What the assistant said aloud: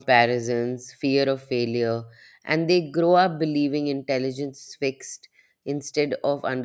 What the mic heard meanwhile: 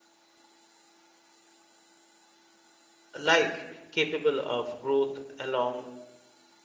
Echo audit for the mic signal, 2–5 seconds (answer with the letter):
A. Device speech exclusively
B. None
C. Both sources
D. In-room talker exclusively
D